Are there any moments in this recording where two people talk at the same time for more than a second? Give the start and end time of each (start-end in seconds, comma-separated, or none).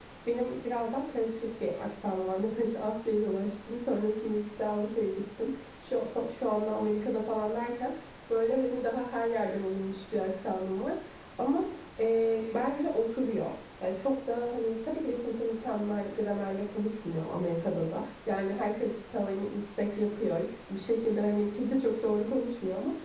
none